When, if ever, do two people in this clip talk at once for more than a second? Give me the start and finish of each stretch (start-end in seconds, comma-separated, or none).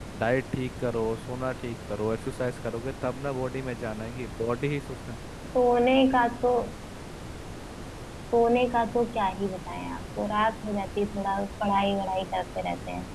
none